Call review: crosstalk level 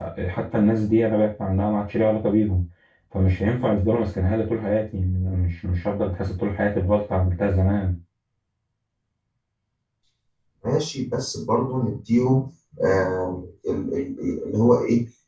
none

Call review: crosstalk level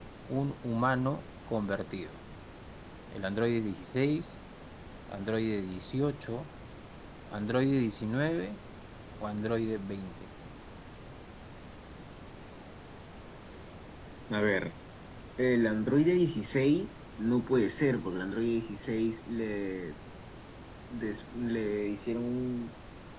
none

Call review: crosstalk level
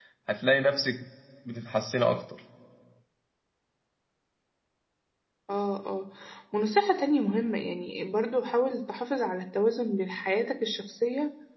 none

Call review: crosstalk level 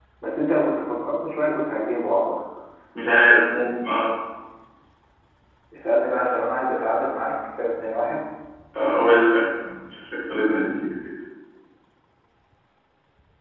none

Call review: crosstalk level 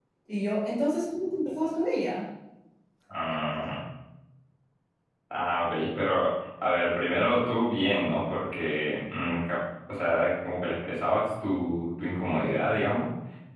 none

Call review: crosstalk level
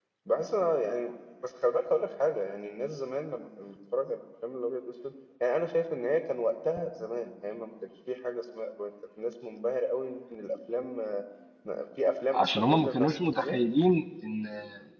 present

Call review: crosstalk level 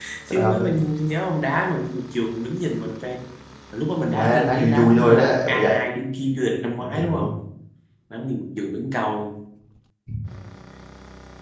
present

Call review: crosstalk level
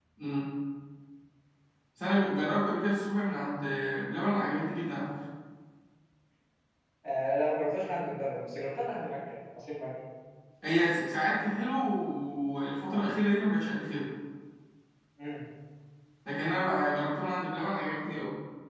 none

